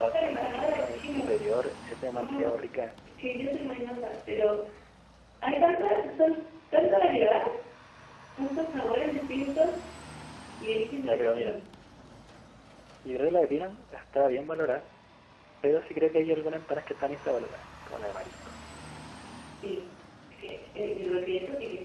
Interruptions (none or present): present